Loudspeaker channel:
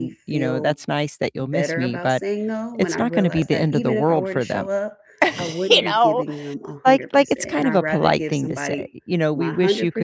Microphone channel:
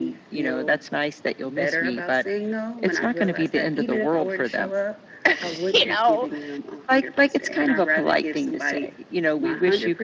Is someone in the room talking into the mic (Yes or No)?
No